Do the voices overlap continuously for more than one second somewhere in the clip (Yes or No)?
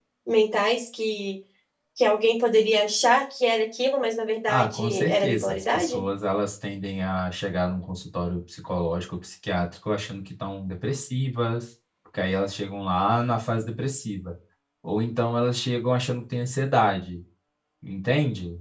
Yes